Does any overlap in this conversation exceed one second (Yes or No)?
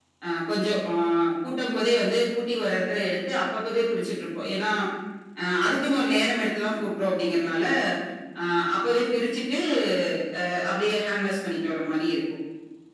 No